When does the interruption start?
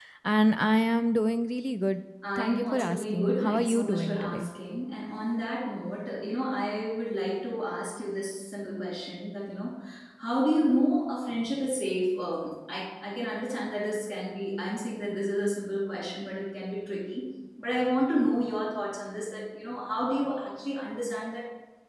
2 s

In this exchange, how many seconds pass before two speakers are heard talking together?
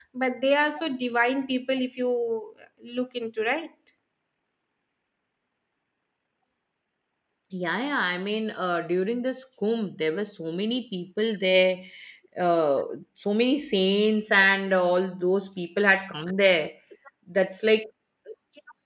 none

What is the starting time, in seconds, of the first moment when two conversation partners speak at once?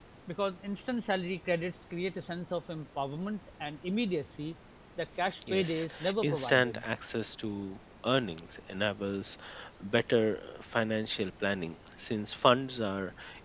6 s

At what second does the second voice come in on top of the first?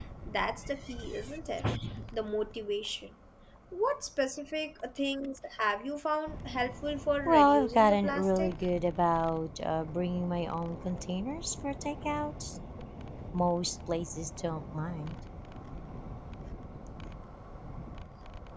7 s

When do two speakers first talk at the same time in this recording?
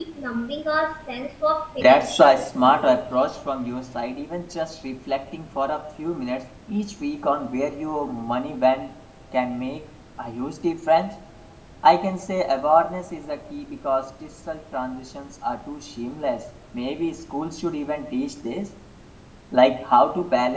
2 s

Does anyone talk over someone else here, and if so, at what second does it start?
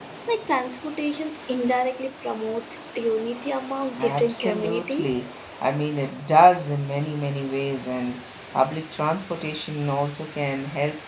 4 s

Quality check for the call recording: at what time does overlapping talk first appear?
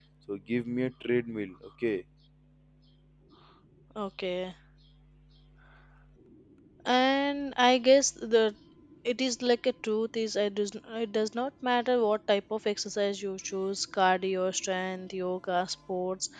none

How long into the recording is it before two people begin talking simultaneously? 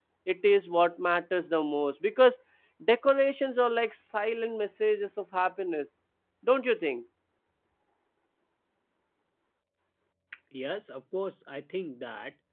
none

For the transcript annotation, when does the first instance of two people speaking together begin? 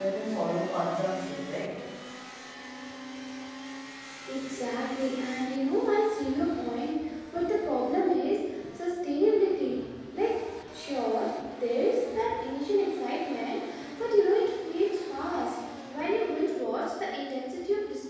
none

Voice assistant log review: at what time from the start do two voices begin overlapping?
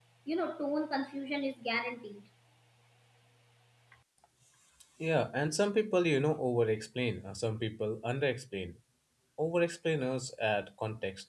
none

